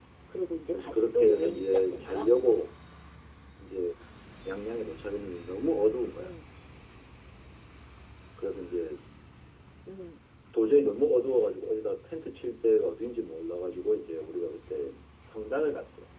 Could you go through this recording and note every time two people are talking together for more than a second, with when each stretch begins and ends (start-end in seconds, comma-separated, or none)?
0.7-2.3